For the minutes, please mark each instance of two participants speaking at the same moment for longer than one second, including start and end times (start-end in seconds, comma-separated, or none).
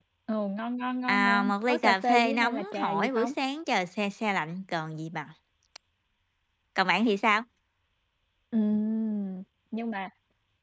1.1-3.3